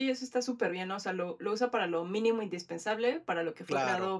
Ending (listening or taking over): listening